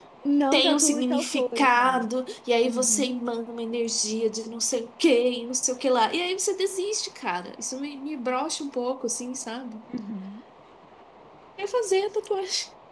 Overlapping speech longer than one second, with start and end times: 0.5-2.0

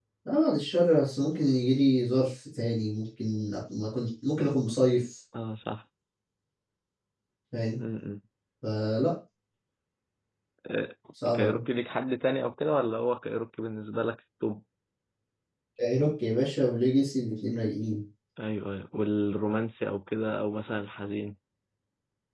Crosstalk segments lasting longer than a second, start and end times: none

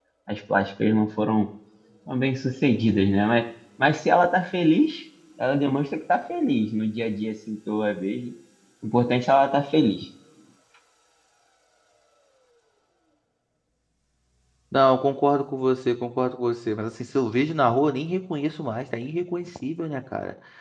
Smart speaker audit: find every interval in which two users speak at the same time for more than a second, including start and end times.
none

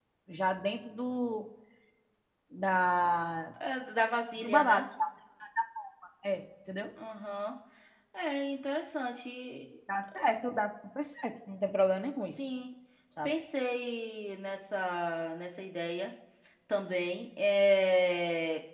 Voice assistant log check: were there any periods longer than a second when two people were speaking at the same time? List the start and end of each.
none

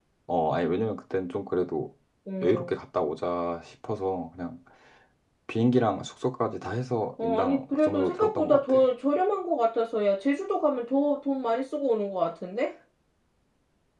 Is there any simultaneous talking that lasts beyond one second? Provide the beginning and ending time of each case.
7.2-8.8

